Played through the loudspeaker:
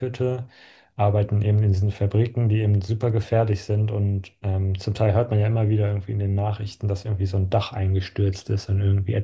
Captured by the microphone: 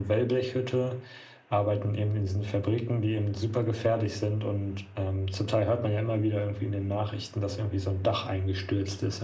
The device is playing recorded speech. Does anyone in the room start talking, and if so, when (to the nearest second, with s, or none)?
none